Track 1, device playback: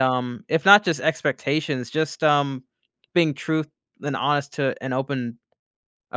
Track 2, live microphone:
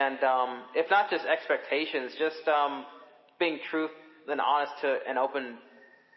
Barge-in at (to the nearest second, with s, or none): none